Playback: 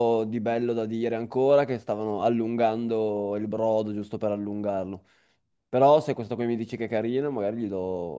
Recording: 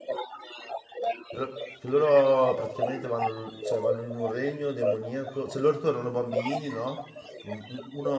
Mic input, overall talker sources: both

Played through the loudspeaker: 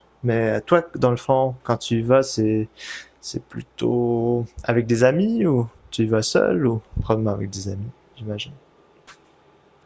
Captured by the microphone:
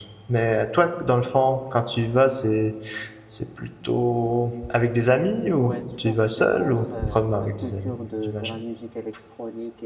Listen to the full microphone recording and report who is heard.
both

